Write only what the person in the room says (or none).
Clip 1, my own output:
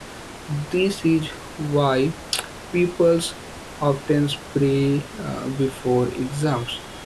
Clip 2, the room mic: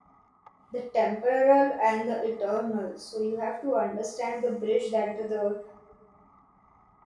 the temporal and the eternal. So you have to understand the bridge that the